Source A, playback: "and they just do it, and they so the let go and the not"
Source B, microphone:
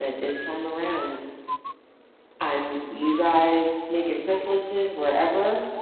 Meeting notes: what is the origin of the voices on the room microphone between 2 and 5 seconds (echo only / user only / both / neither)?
user only